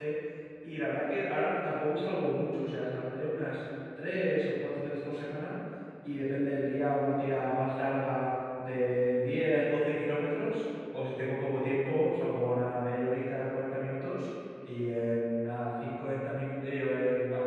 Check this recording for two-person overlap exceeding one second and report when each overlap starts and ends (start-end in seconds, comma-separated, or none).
none